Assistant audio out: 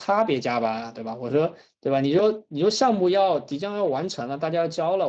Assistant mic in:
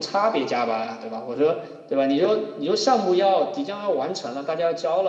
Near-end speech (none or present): none